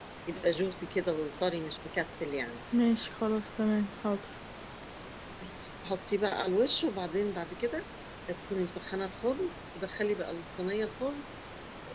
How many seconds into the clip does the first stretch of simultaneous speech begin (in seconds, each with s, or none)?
none